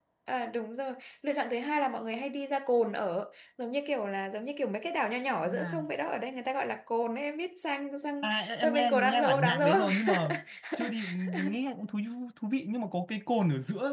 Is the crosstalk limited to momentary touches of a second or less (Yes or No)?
No